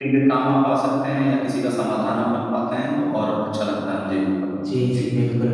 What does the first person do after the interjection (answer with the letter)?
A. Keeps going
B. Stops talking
B